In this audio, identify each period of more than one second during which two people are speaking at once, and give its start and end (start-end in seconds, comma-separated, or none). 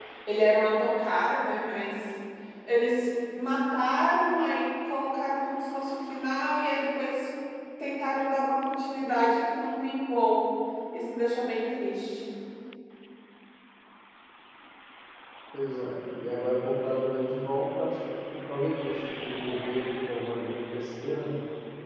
none